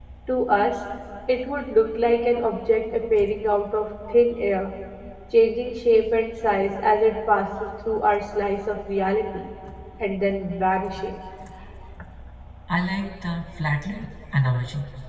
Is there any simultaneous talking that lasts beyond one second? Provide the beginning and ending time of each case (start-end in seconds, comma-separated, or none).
none